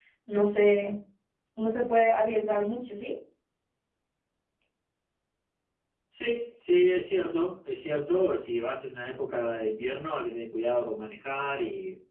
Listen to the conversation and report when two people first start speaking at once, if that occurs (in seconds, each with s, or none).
none